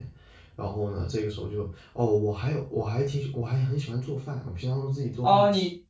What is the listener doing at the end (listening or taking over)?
taking over